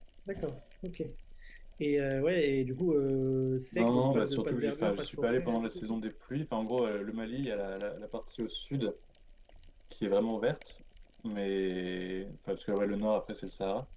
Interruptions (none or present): present